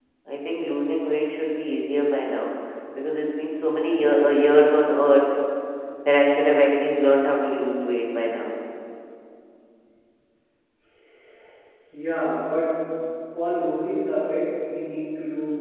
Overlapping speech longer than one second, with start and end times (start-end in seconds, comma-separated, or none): none